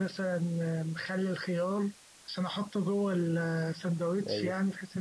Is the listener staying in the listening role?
No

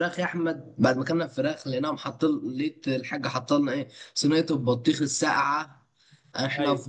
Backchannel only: Yes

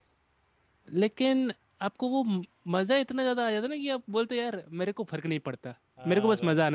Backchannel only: No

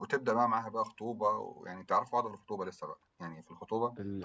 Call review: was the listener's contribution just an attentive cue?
No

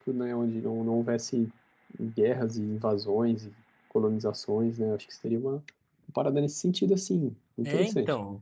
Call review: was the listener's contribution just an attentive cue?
No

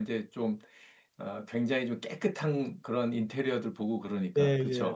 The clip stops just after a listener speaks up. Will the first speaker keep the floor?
No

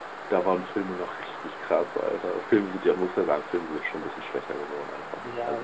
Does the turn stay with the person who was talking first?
No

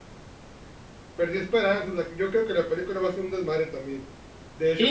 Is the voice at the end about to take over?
Yes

